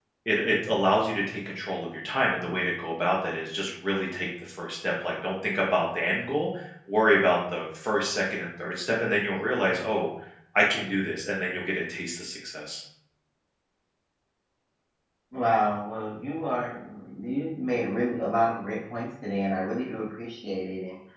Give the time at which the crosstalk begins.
none

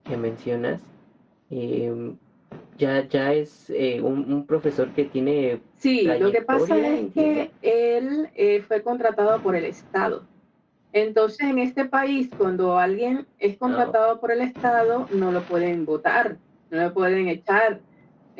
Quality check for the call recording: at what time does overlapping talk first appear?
6.0 s

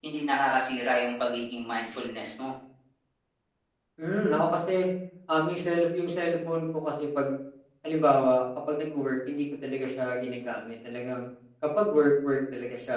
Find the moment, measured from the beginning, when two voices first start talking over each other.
none

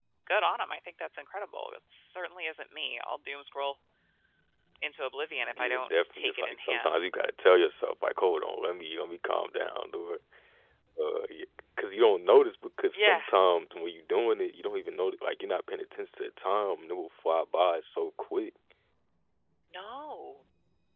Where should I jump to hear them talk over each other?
5.6 s

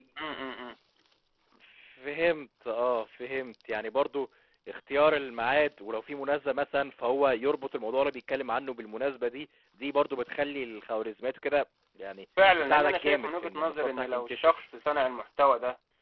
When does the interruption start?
12.4 s

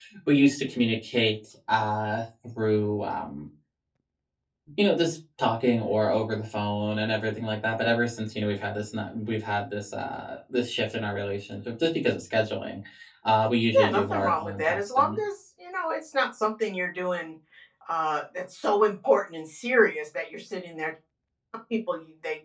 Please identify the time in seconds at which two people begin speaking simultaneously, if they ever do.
13.8 s

